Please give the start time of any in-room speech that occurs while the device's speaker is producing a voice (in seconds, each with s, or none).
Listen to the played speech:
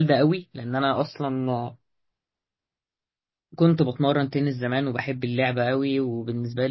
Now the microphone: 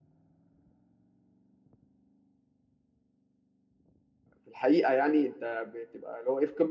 4.4 s